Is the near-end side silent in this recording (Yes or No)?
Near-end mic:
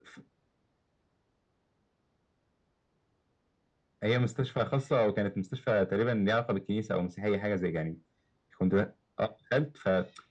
Yes